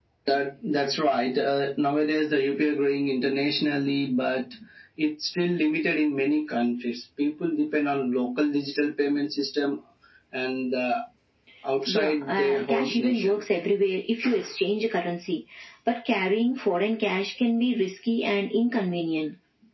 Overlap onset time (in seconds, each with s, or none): 11.9 s